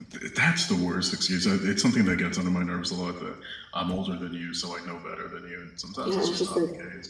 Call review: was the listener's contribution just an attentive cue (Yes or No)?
No